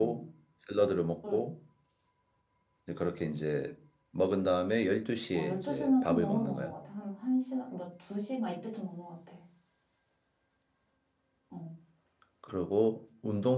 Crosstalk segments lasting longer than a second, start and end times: 5.3-6.7

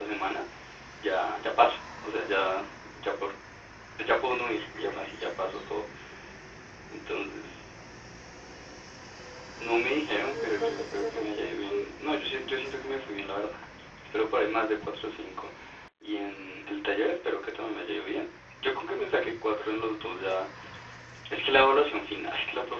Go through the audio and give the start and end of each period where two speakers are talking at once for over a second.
10.3-11.8

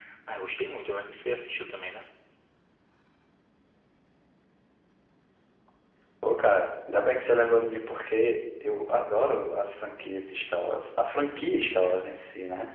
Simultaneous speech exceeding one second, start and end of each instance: none

